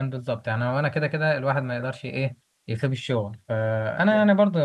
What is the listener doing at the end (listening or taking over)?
listening